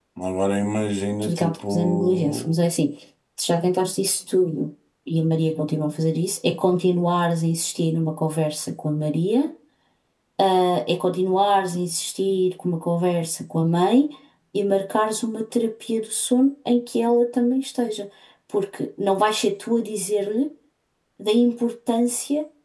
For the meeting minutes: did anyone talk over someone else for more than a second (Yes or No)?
Yes